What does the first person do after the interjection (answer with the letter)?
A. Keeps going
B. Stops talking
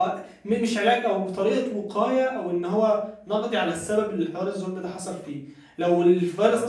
A